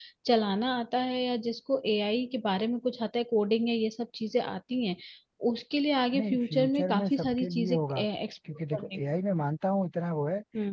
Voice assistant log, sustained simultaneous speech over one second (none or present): present